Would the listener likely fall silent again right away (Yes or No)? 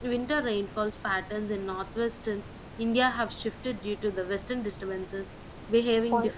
No